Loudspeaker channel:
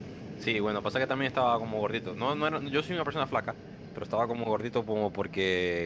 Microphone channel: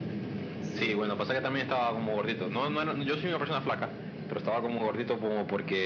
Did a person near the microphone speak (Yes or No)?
Yes